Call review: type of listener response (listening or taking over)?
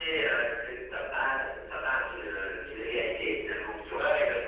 taking over